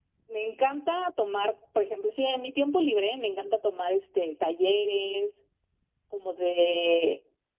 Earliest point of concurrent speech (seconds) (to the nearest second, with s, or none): none